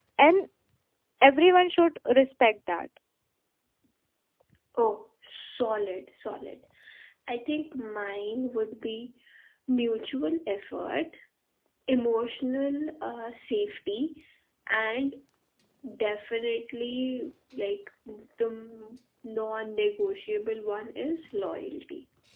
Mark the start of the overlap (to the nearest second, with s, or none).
none